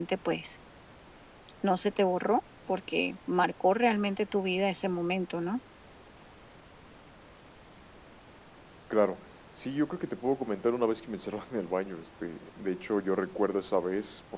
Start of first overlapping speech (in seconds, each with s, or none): none